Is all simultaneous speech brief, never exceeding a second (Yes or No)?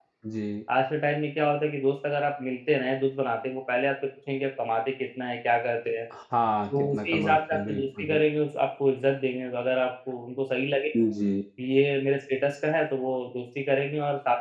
No